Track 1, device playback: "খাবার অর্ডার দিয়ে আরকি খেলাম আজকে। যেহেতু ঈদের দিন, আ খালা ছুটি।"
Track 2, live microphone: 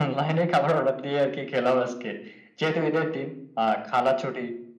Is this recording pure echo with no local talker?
Yes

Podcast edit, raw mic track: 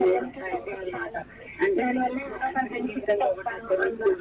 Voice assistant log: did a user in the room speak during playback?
No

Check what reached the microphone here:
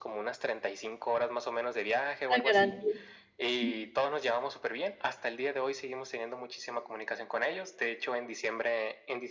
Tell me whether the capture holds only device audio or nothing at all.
No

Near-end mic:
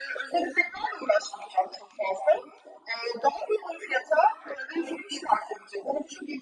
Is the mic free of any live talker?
Yes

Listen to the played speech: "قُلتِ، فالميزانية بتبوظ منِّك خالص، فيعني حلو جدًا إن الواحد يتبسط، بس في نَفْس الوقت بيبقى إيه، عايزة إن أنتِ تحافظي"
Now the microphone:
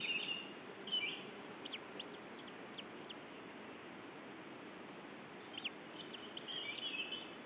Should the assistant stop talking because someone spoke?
No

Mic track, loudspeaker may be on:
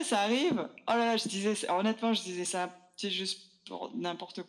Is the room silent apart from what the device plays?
Yes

